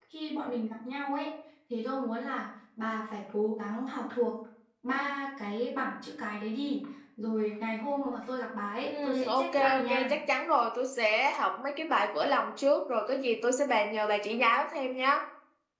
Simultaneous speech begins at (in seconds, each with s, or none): 8.8 s